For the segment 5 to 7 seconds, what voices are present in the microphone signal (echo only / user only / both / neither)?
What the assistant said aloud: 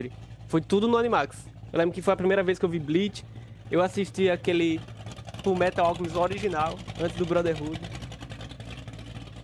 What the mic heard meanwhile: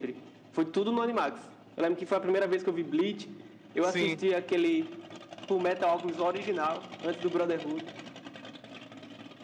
echo only